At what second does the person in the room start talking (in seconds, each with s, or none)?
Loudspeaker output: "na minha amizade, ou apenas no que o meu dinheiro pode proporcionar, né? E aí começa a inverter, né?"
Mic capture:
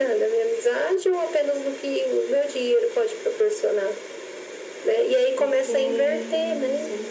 5.4 s